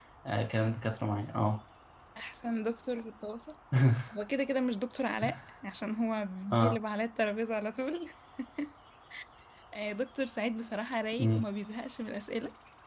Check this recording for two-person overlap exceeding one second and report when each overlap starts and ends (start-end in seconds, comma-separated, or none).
none